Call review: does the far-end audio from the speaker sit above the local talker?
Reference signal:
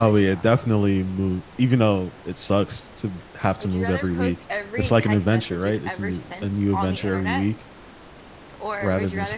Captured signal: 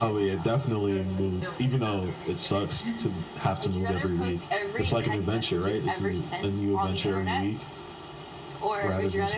Yes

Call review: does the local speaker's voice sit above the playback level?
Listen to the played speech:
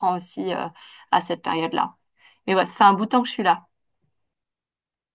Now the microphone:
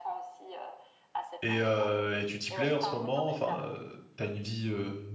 Yes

